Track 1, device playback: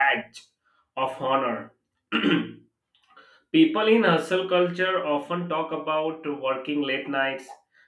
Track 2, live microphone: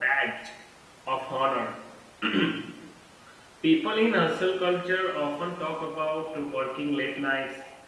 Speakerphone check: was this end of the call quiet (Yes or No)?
Yes